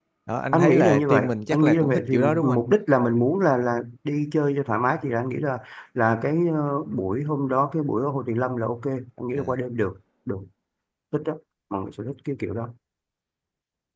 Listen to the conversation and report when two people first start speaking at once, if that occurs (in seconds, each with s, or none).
0.5 s